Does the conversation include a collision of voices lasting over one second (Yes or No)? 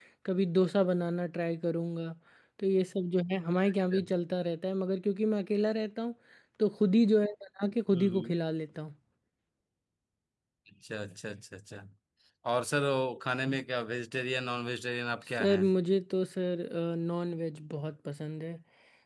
No